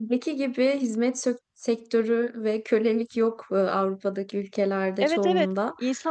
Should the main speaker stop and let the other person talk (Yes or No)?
Yes